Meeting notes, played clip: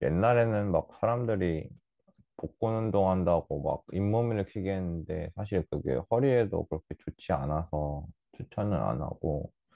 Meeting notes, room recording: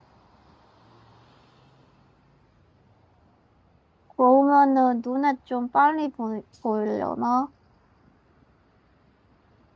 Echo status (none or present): none